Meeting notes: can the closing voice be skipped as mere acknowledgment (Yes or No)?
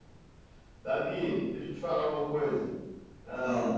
Yes